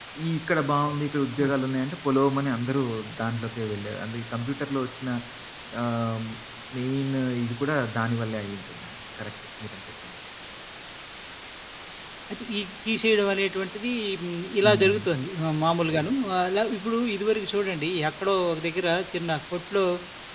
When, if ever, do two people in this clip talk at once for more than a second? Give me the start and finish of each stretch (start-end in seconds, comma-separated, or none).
none